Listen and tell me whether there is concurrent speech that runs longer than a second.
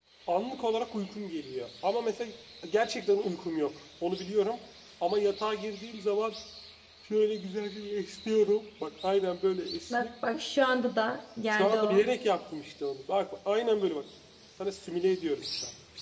No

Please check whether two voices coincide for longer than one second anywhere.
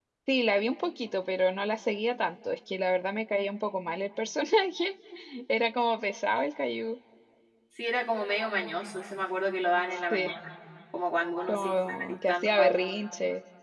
Yes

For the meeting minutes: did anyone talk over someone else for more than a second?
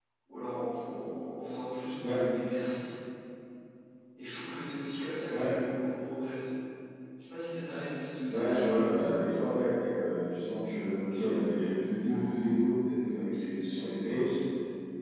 Yes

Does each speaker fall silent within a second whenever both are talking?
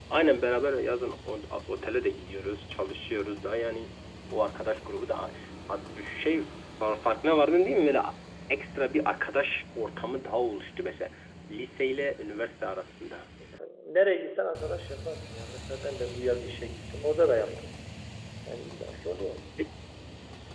Yes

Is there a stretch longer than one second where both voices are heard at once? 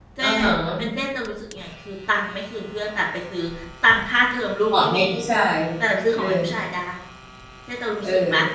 No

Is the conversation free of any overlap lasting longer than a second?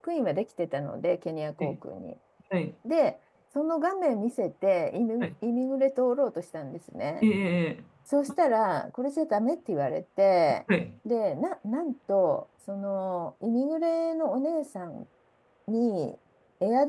Yes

